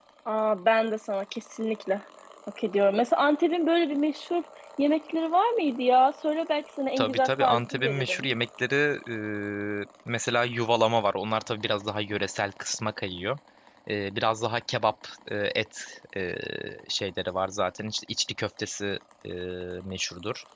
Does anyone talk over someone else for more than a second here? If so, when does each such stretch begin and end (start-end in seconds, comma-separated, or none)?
7.0-8.2